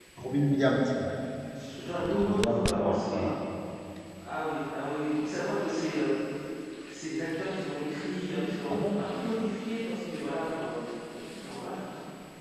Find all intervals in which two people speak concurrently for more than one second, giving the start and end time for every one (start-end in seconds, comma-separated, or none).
1.9-3.4